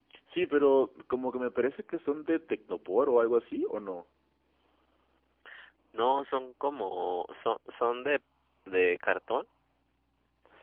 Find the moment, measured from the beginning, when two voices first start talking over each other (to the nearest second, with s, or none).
none